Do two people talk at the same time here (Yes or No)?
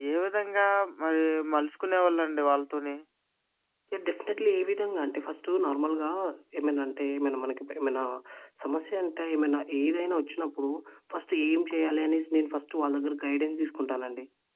No